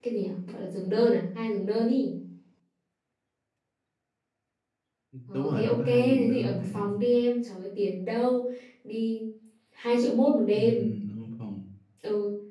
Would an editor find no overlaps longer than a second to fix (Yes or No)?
No